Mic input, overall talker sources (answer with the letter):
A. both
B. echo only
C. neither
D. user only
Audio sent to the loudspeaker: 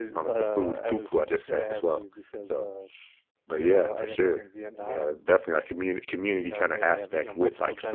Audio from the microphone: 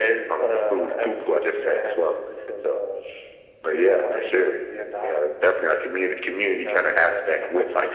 B